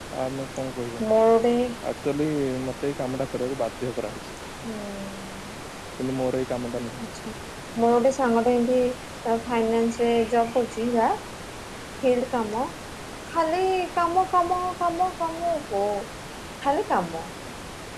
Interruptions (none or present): none